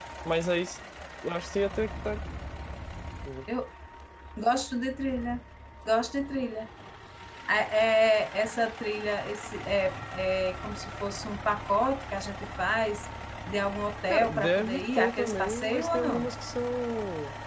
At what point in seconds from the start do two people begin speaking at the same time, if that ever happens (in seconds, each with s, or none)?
14.1 s